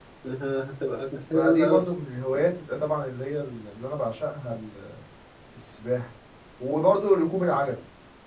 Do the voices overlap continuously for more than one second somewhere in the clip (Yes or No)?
No